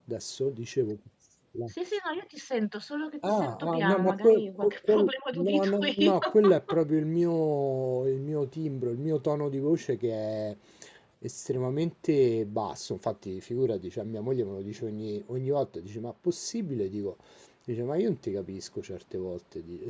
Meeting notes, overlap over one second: present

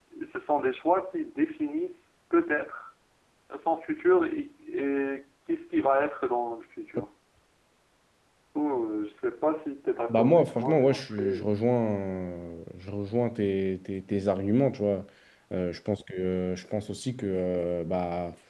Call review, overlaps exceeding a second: present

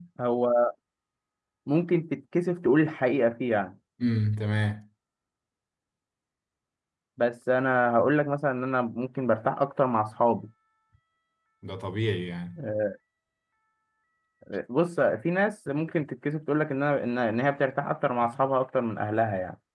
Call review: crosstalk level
none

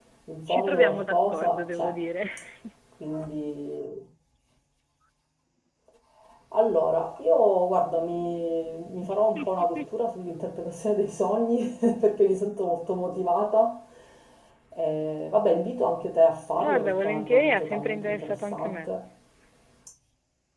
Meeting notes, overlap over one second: present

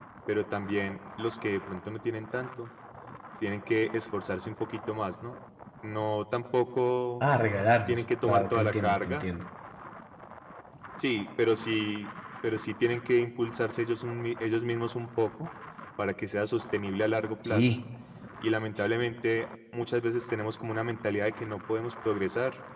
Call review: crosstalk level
present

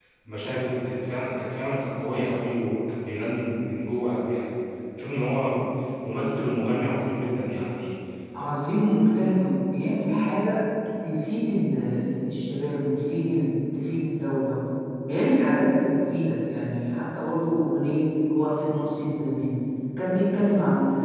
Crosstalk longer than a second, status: none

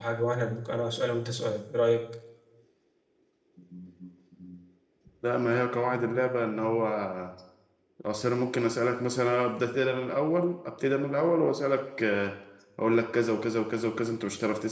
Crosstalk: none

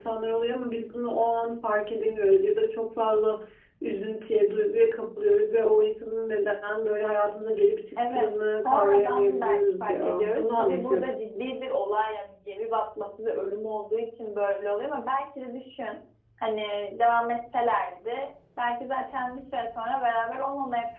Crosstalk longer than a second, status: present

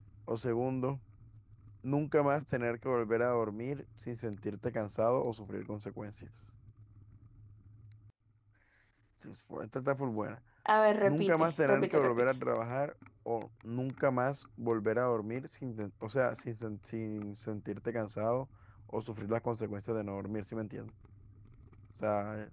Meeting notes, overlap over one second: present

